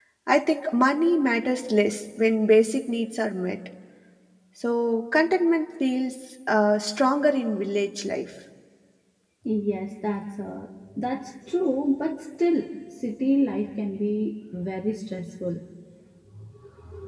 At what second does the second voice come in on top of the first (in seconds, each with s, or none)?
none